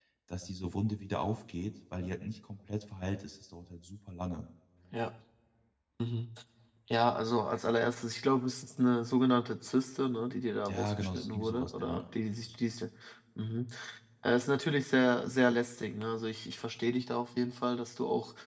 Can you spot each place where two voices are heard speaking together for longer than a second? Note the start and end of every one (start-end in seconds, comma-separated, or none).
10.7-12.0